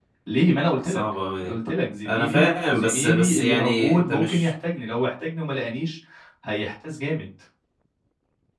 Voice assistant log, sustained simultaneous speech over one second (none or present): present